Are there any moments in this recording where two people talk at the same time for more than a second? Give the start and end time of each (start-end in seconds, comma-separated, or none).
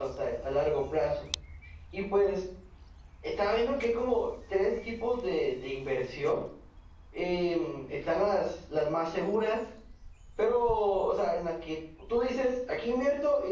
none